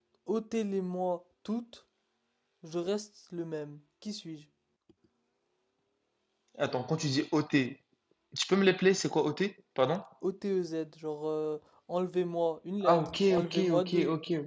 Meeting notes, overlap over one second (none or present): present